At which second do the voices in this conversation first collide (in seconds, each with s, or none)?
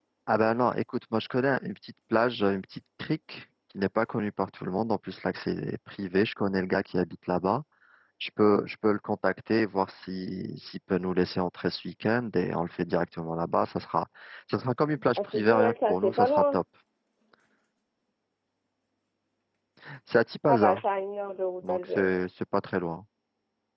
15.2 s